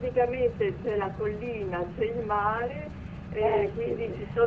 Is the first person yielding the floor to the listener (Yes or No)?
No